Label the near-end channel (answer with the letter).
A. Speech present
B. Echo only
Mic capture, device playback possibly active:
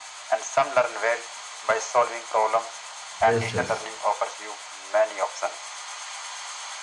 A